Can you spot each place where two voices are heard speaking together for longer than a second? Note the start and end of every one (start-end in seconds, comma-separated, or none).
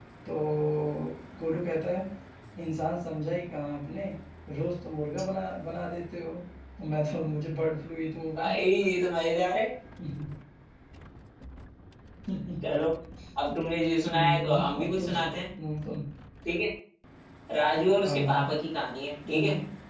14.1-15.3